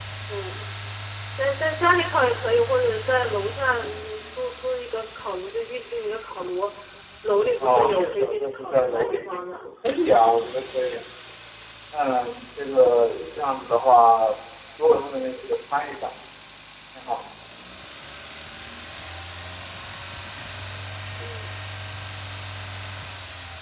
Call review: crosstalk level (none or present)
present